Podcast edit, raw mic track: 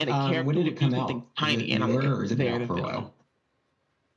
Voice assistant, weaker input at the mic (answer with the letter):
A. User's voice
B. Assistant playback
A